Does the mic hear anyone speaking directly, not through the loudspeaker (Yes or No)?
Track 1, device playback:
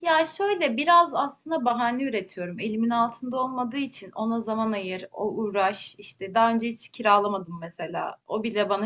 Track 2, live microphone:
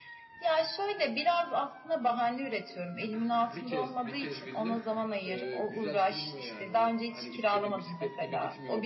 Yes